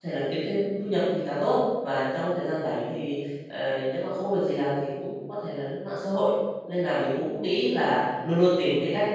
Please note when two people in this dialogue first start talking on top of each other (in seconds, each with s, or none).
none